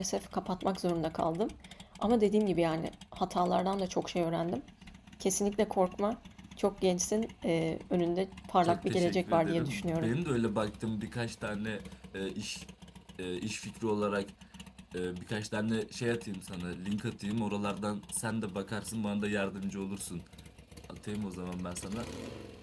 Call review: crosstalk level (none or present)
present